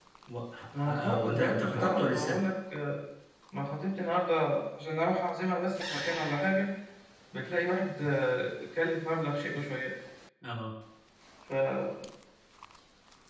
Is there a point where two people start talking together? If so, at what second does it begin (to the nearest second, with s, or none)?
1 s